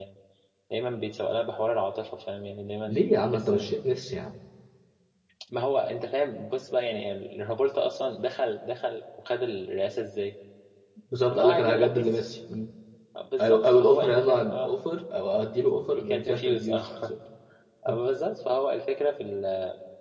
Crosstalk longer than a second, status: present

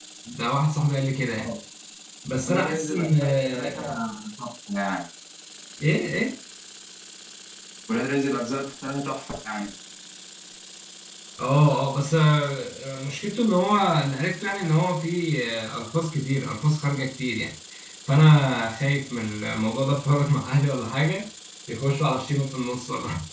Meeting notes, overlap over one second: present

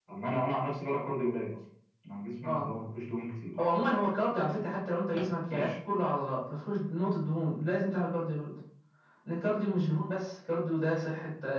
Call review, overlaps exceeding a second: none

